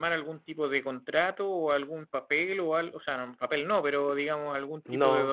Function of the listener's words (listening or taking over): listening